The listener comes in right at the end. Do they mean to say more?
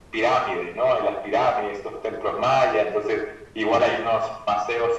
No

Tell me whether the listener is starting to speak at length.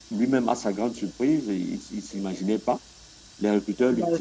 No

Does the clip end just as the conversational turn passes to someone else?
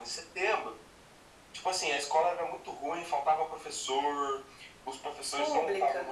No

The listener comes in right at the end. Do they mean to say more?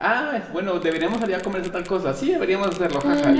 Yes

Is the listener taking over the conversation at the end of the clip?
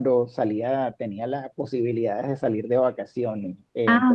No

